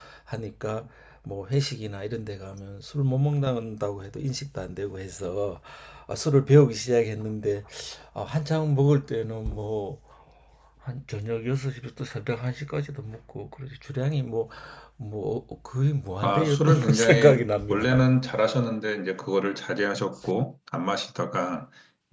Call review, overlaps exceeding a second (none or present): present